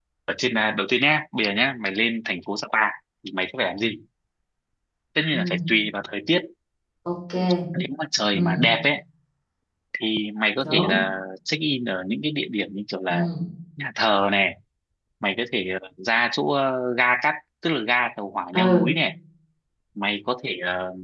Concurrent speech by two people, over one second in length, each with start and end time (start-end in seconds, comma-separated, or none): none